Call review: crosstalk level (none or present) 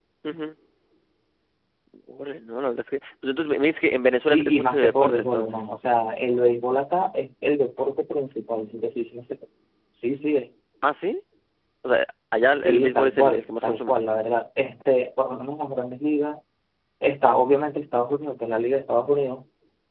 present